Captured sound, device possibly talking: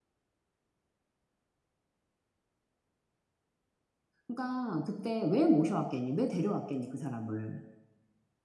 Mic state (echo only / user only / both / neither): user only